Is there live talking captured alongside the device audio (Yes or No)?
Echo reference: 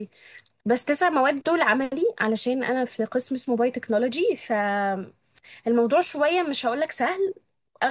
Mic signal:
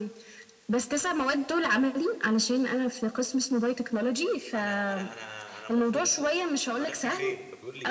Yes